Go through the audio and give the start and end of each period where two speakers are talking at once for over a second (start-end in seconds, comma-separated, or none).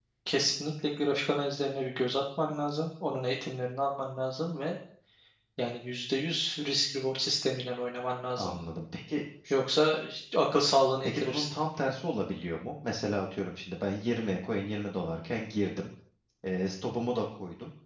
none